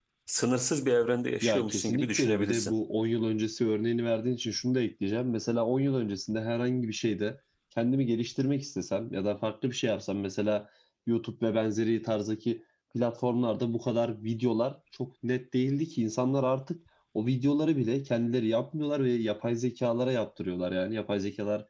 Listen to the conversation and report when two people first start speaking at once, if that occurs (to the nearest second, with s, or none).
1 s